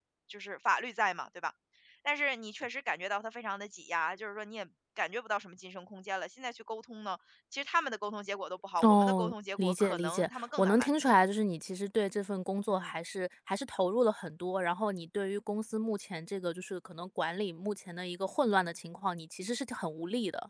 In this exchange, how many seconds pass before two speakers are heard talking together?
8.8 s

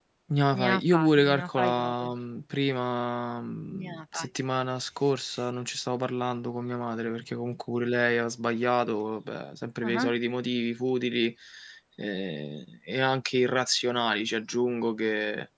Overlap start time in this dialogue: 0.6 s

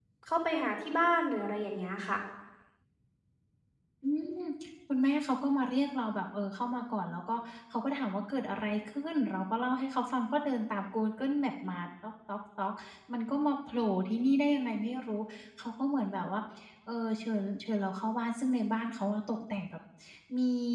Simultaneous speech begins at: none

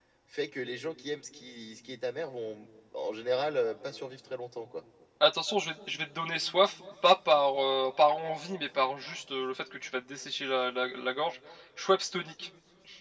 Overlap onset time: none

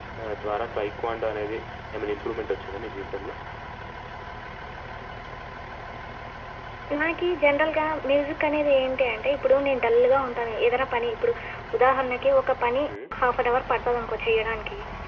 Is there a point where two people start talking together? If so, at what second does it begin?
none

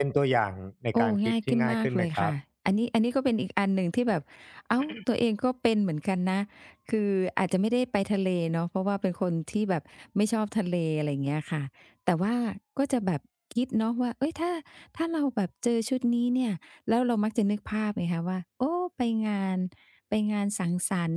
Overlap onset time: 0.9 s

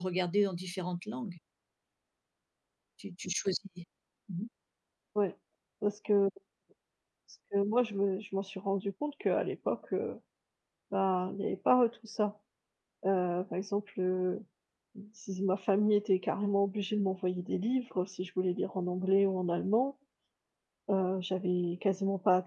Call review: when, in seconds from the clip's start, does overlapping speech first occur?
none

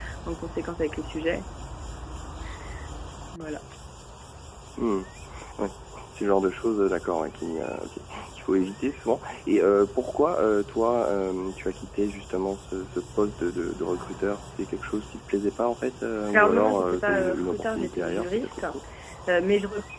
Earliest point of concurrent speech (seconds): 16.2 s

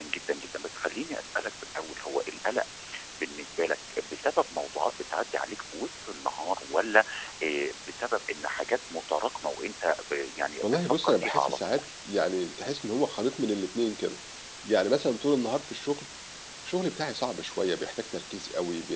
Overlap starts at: 10.6 s

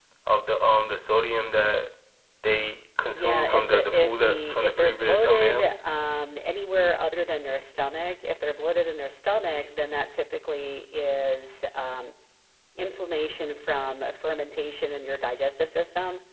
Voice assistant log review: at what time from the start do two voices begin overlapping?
3.1 s

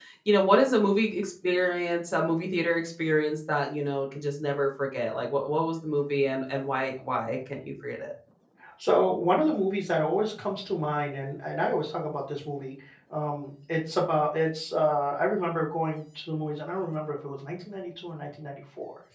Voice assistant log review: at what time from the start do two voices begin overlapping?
none

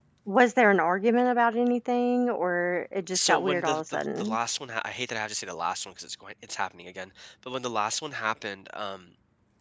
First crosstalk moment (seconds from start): 3.1 s

